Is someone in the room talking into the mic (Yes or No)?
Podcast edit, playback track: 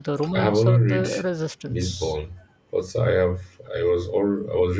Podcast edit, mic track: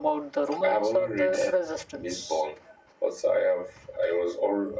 No